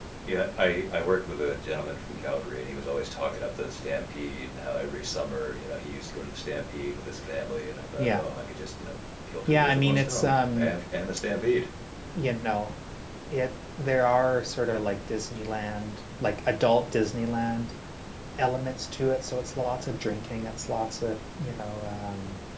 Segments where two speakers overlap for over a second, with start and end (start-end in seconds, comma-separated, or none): 9.5-10.8